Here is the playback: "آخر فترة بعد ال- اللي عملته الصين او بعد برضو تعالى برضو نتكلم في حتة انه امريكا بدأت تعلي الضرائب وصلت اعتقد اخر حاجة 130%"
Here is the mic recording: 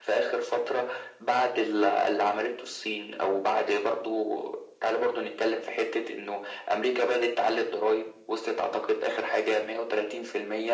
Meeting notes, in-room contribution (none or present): none